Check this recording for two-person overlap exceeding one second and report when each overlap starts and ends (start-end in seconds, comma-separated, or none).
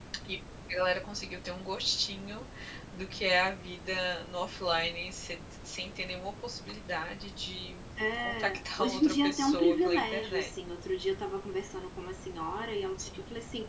8.1-10.5